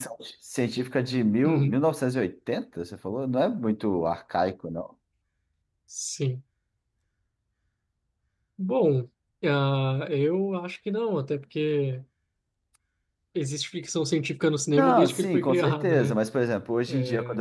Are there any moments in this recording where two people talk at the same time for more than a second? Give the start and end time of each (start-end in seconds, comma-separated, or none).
14.8-16.1